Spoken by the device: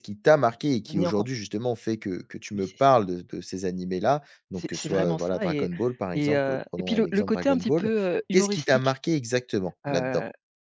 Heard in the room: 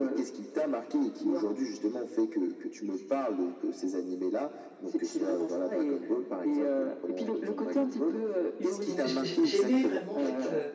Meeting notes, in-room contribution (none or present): present